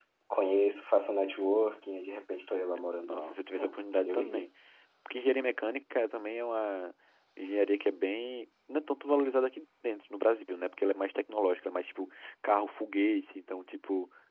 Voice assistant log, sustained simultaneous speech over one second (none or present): present